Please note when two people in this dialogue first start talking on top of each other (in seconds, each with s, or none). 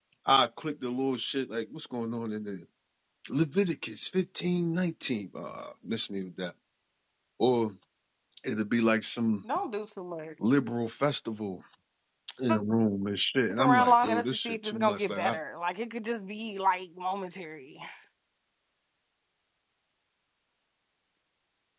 13.5 s